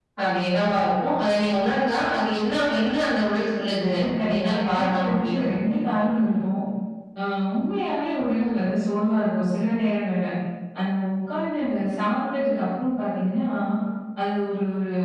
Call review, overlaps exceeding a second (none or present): present